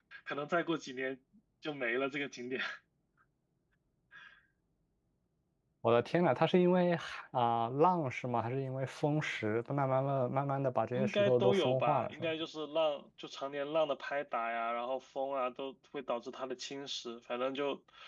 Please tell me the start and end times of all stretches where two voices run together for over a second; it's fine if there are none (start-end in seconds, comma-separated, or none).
10.9-12.3